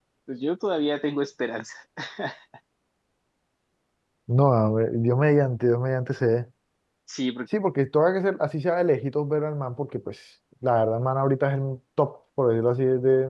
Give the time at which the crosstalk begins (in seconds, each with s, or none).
none